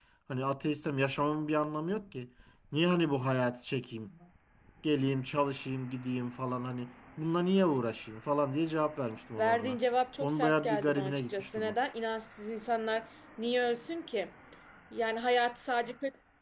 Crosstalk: present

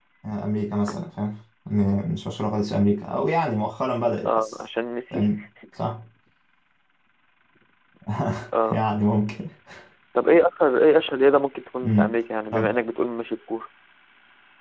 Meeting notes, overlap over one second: none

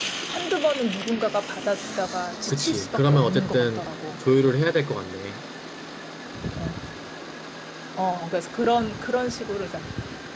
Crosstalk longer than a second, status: present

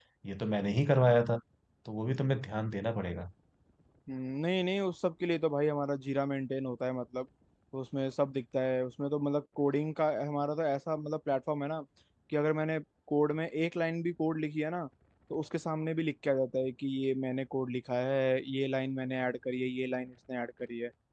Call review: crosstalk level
none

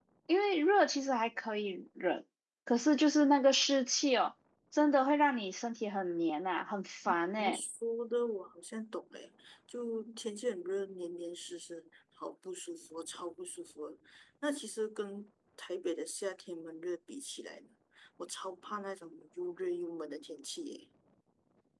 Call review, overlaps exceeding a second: none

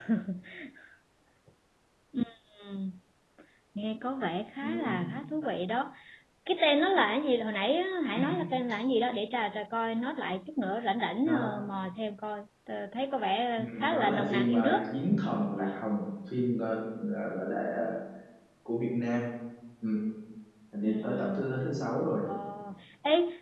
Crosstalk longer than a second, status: present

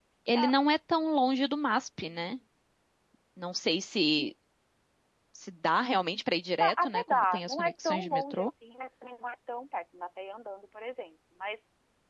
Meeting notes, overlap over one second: present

